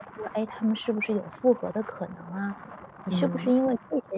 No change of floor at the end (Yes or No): Yes